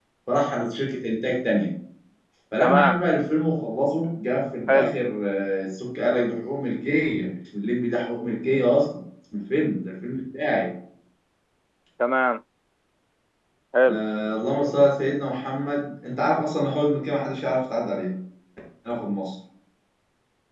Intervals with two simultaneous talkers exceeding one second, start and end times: none

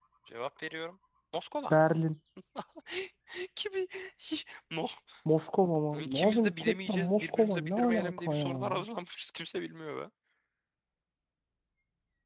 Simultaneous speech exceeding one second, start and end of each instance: 6.0-8.8

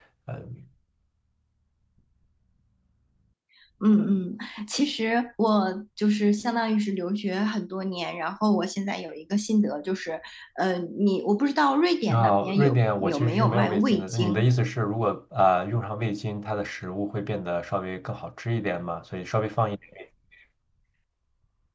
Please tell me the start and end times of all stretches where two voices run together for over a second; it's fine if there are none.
12.1-14.5

